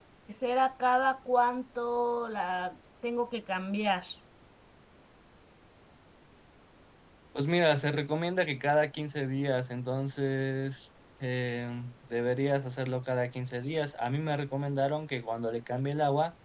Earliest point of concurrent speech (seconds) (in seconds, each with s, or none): none